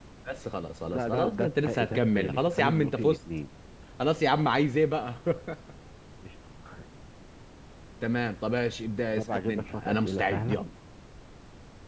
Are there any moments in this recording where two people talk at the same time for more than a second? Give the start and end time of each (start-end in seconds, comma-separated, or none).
0.9-3.2, 9.2-10.6